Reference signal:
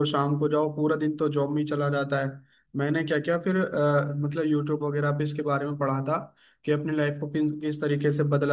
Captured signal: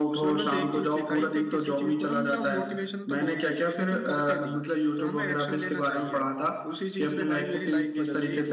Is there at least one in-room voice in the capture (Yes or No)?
Yes